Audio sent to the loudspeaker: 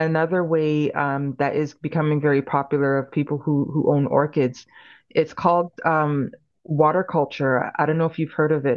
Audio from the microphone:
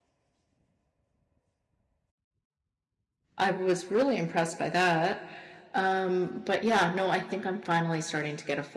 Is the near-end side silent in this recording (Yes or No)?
No